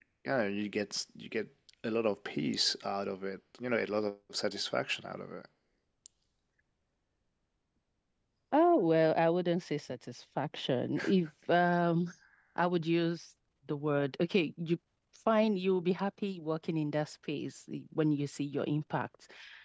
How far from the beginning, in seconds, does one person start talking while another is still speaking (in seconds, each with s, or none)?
none